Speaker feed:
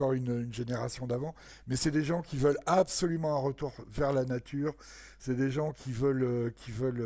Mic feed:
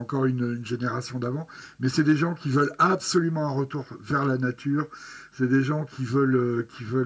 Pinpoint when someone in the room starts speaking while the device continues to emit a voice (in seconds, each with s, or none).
none